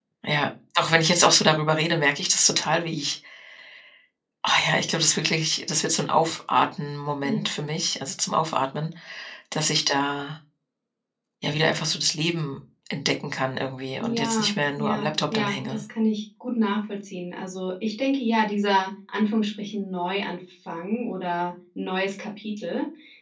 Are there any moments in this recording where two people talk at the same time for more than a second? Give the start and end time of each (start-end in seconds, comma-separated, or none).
14.0-15.8